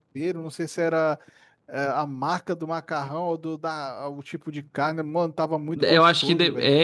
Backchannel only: No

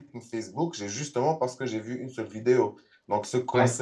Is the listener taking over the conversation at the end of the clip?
No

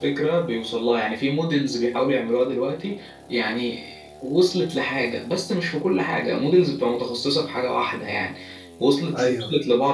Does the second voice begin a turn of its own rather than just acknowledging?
No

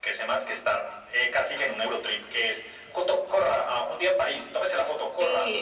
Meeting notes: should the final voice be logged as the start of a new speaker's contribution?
Yes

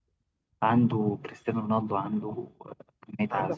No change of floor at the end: No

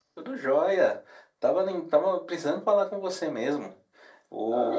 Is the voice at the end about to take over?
No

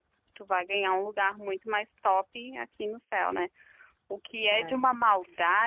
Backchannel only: Yes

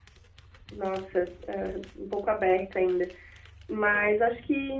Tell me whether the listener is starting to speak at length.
No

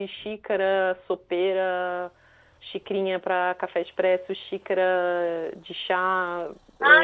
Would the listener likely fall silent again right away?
No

